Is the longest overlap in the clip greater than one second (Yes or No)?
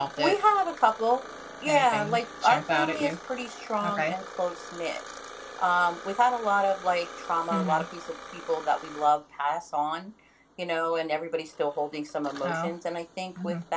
Yes